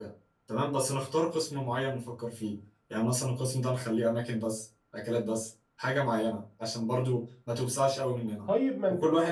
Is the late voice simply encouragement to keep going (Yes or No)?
No